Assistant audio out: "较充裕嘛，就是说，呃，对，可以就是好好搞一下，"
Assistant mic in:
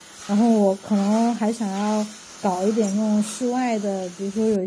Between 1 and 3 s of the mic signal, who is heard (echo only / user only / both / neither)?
user only